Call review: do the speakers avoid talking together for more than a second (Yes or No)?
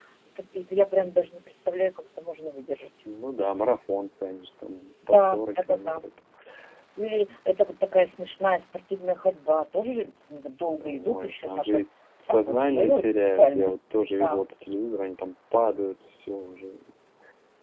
No